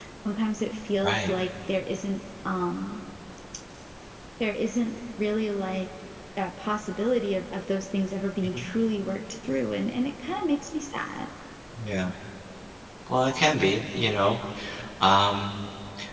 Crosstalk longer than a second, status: none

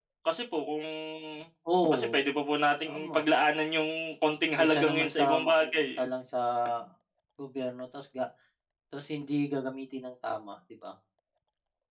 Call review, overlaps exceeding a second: present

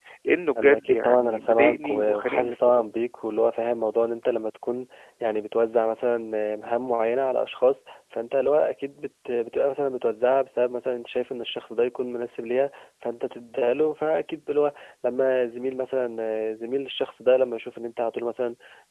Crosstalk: present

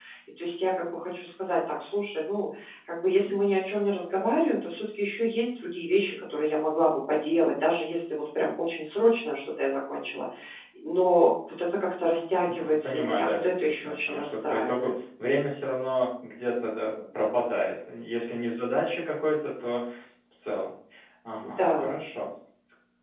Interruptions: present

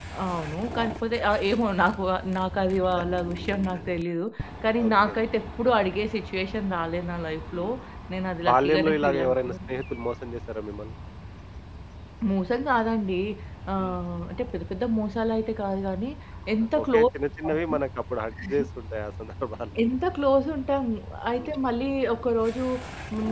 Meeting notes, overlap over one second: present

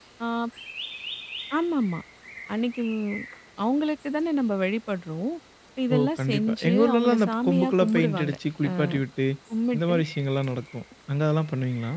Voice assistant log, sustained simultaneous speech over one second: present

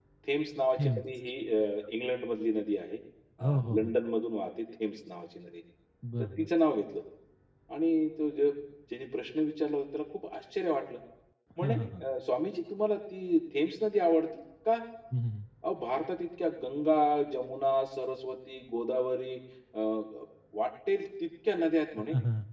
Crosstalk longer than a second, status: none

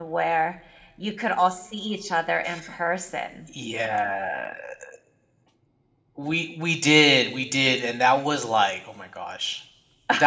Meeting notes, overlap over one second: none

